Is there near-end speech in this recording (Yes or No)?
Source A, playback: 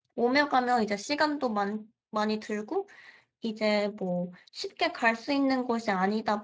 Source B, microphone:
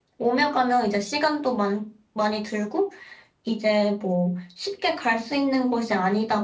No